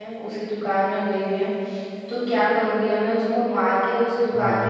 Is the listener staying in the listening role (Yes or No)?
Yes